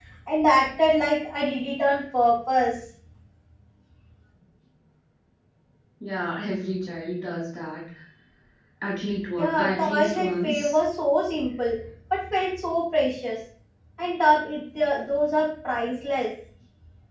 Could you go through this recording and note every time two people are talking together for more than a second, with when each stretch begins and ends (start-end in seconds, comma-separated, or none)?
9.4-10.8